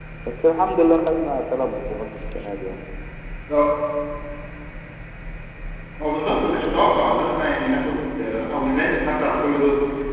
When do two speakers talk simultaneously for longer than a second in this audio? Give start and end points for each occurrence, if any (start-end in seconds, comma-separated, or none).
none